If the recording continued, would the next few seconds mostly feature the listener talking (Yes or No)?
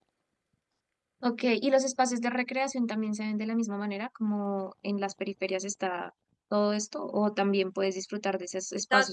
No